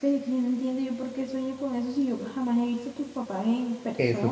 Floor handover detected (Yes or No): Yes